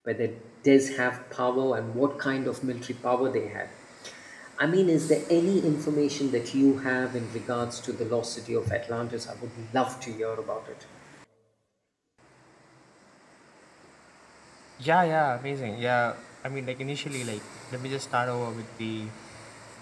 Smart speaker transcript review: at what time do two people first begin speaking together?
none

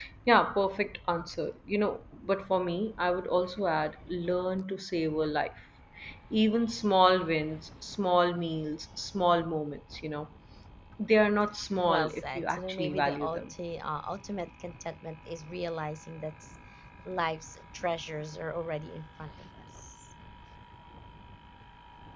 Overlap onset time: 11.9 s

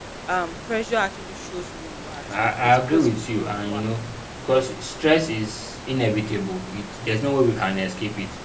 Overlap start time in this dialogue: 2.2 s

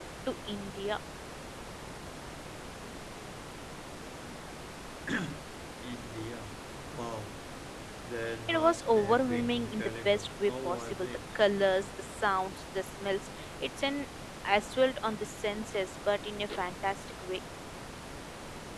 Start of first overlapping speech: 8.5 s

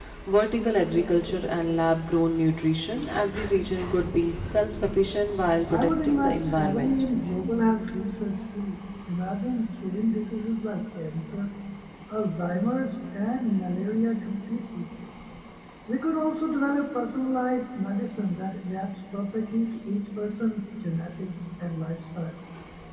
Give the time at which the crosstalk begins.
5.7 s

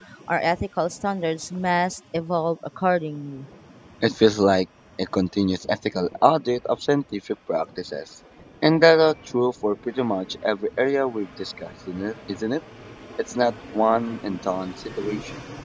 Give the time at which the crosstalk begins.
none

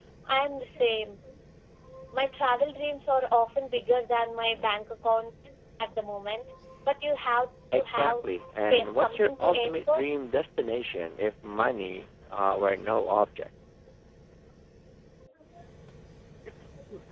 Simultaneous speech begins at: 7.7 s

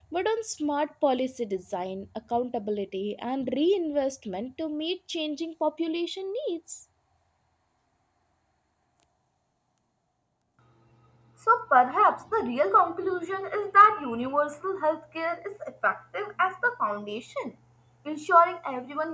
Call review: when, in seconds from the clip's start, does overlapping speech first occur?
none

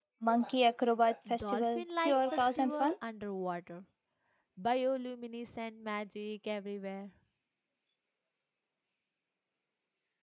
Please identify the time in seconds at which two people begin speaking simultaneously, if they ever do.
1.3 s

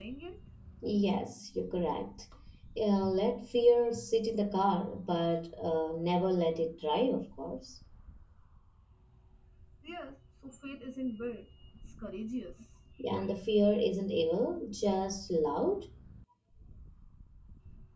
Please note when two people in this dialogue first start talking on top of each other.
none

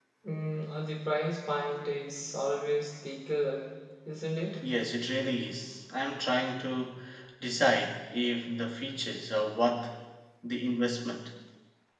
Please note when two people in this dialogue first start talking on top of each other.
none

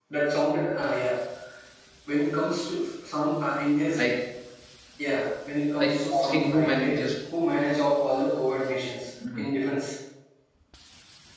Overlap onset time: 5.8 s

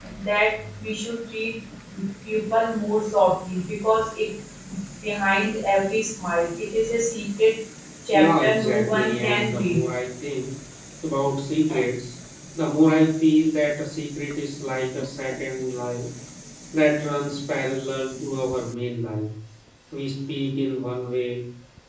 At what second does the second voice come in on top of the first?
8.1 s

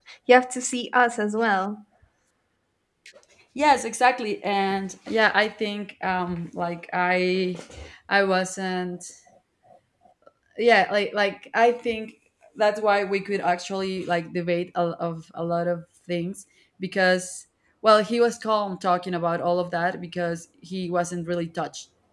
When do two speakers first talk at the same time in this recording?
none

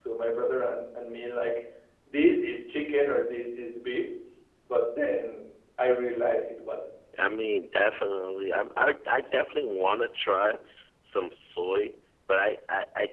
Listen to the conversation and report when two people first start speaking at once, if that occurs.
none

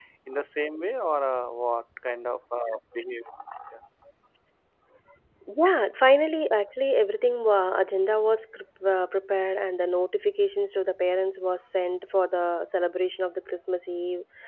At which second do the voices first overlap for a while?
none

